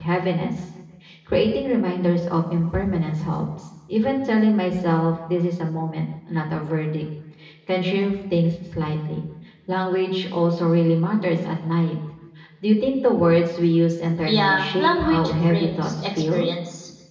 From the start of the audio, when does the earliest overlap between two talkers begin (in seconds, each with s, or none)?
14.3 s